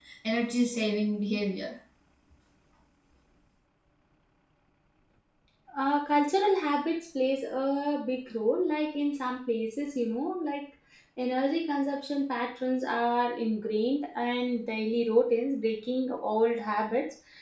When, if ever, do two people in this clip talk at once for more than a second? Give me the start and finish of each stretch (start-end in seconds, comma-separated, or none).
none